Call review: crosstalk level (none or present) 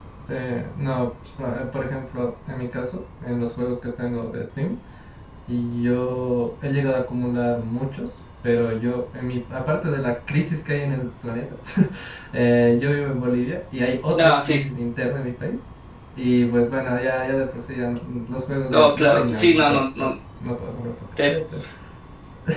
present